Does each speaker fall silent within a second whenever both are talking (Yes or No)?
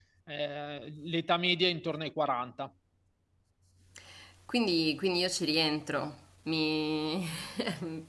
Yes